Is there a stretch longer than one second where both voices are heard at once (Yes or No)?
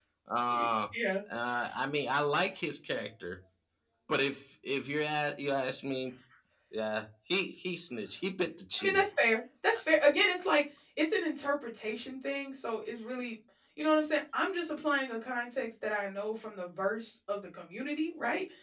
No